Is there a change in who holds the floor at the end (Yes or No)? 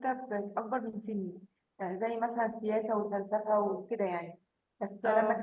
No